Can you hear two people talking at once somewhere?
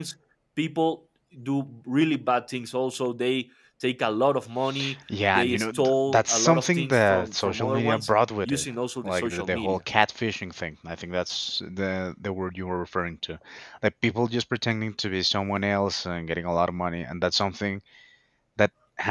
Yes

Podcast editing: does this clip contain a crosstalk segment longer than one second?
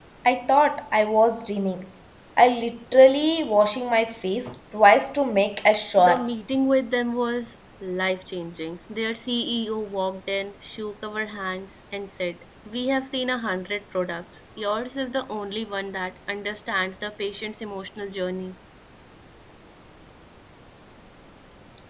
No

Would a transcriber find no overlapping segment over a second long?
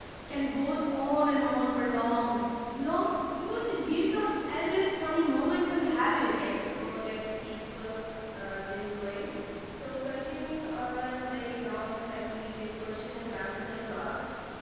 Yes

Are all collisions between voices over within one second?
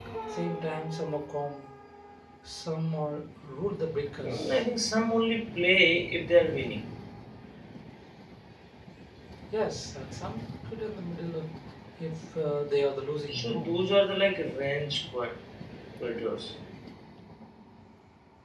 Yes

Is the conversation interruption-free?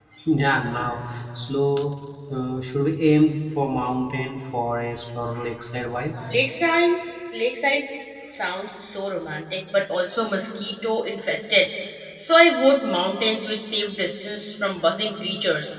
Yes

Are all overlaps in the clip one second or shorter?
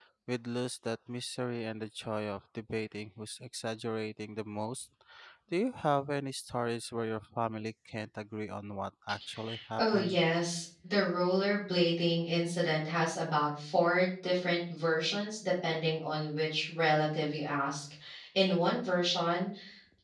Yes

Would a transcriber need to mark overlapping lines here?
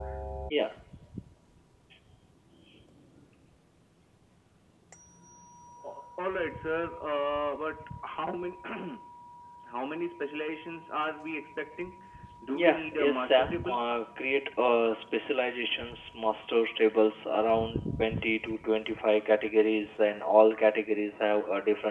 Yes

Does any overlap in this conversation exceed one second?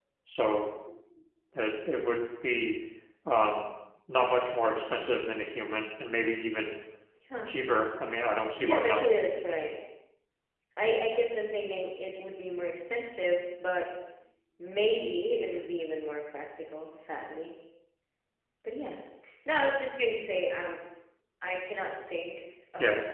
No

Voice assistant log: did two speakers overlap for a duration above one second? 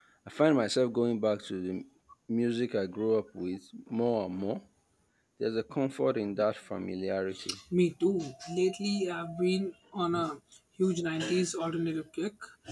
No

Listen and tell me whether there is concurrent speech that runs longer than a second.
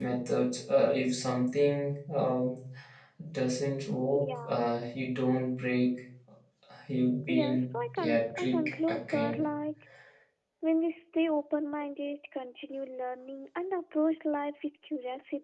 Yes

